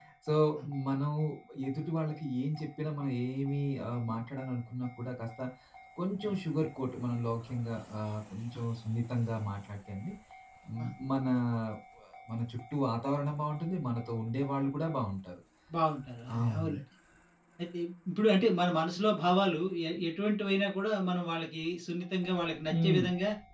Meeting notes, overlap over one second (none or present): none